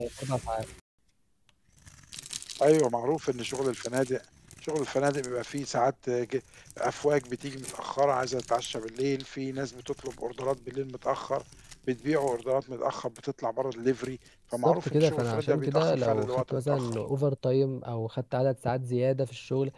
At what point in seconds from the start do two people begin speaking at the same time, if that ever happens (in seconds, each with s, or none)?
14.5 s